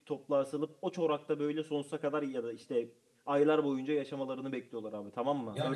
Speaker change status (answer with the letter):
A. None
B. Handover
B